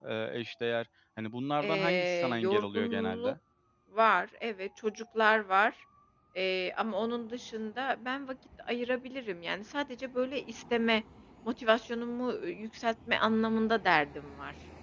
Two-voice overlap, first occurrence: 2 s

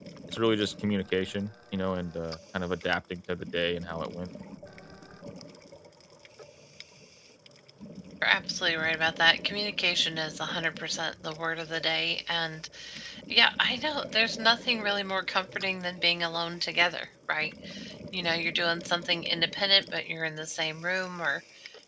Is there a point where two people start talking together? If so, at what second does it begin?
none

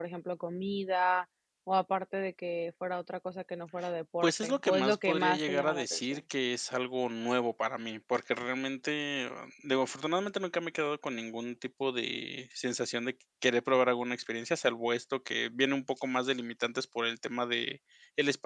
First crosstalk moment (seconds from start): 4 s

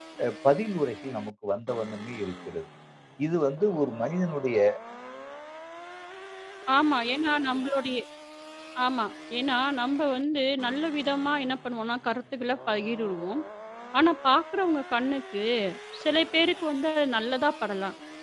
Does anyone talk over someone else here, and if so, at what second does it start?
none

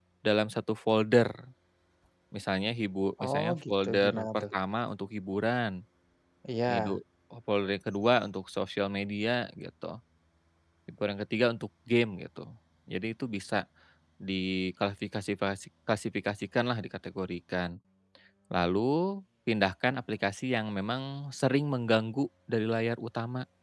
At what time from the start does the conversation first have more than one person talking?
3 s

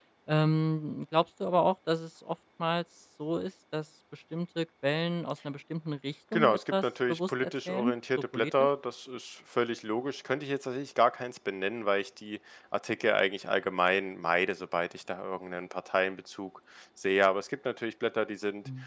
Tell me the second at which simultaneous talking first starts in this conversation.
6 s

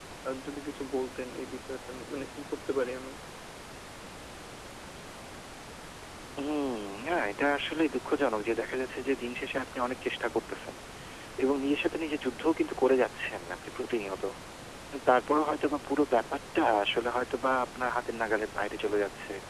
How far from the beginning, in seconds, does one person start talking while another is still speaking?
none

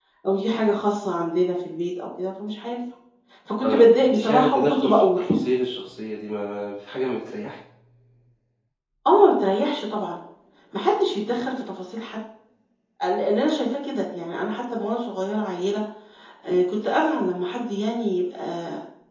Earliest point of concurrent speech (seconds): 4 s

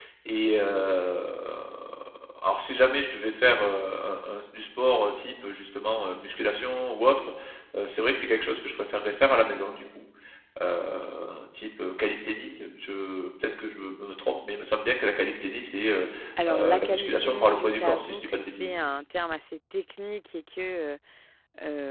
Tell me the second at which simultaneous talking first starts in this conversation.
16 s

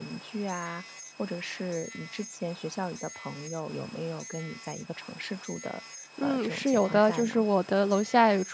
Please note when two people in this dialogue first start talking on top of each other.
6 s

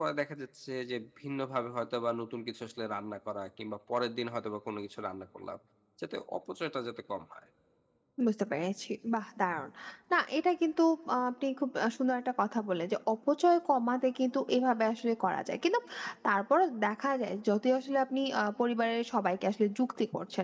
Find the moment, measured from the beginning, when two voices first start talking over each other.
none

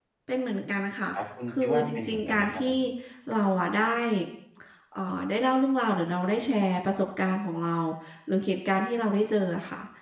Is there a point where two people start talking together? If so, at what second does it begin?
2 s

